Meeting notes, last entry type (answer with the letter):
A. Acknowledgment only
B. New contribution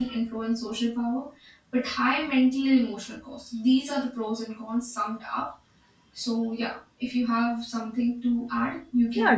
B